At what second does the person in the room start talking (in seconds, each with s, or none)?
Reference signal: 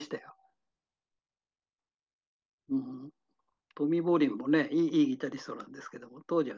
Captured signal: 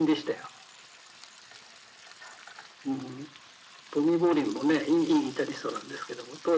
none